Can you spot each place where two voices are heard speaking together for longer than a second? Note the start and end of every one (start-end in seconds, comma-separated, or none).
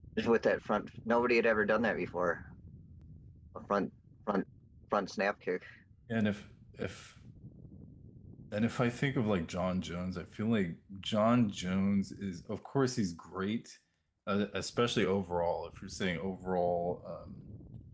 none